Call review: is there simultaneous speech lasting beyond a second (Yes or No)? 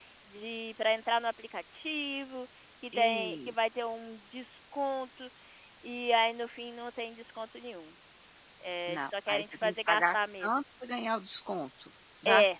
Yes